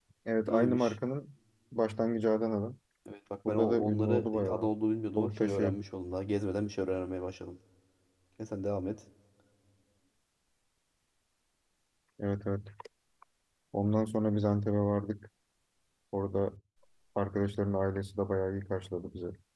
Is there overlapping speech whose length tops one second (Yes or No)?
Yes